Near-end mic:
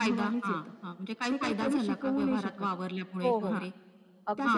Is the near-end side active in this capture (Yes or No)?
Yes